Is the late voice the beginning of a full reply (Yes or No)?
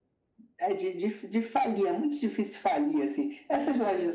No